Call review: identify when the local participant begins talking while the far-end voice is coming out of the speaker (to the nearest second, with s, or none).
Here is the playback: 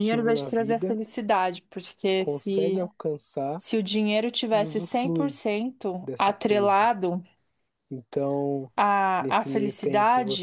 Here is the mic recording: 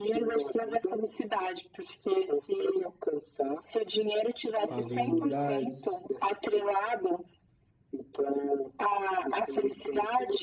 5 s